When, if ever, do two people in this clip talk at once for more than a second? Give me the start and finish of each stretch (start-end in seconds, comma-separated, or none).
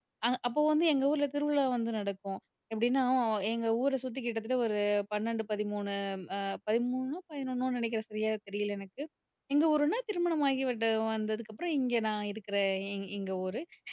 none